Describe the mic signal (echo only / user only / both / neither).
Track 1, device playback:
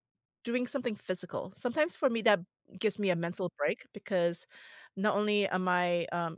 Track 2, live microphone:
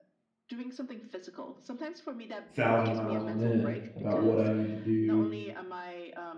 both